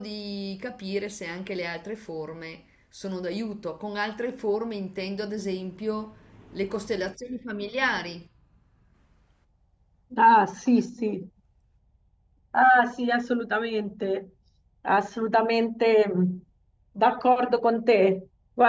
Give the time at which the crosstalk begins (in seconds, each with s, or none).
none